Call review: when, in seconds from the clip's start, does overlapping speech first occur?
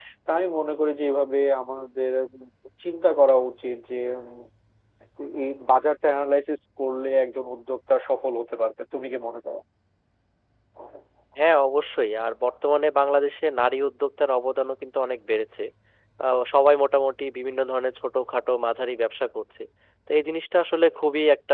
none

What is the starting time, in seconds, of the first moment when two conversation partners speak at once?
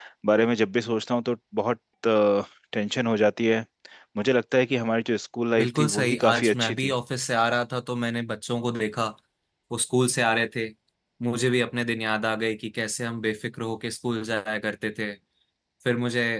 6 s

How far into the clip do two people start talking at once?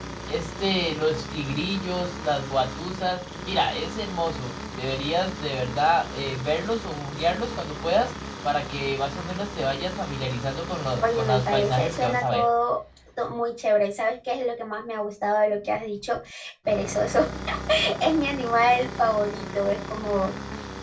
11 s

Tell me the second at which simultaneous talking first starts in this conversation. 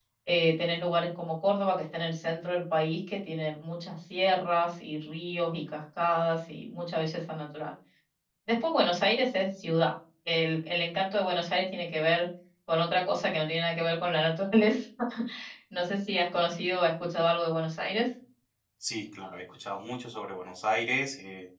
none

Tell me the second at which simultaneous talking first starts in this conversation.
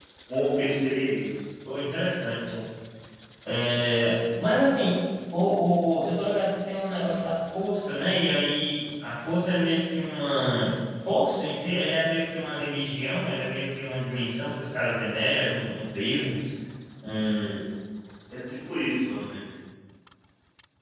none

